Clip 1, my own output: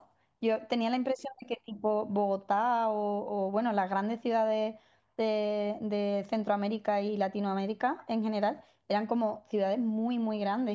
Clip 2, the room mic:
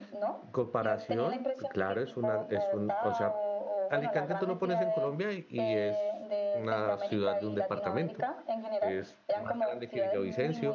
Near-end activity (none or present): present